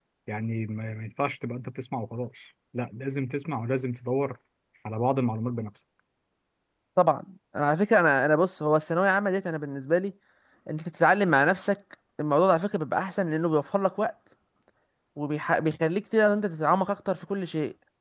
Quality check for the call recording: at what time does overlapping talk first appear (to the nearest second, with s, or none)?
none